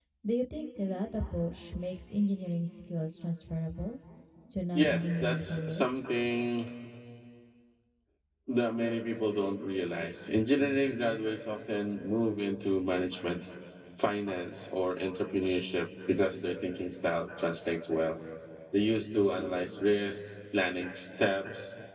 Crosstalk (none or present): present